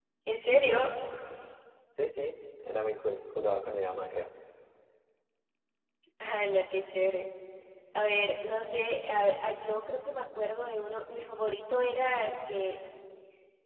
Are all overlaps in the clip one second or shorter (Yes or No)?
Yes